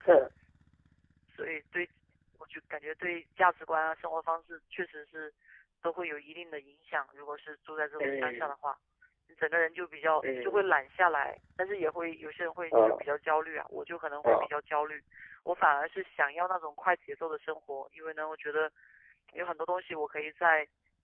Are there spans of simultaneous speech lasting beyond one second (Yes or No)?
No